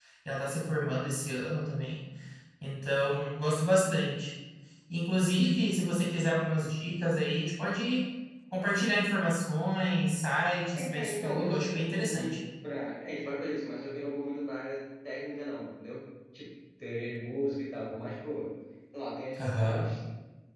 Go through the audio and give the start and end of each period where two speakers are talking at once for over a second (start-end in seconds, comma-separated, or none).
10.7-12.4